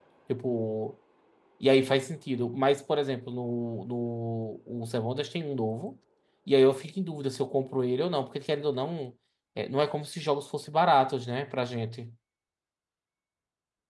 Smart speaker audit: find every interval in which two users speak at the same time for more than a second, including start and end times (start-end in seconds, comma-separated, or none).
none